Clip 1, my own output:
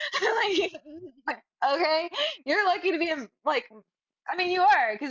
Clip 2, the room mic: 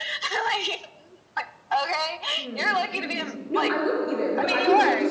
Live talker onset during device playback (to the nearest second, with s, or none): 2 s